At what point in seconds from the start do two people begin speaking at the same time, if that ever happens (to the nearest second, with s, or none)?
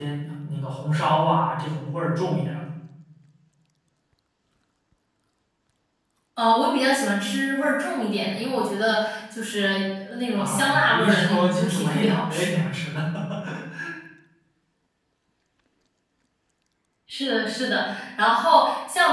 10 s